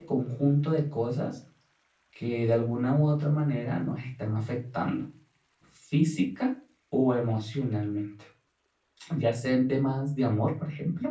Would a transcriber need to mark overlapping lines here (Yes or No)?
No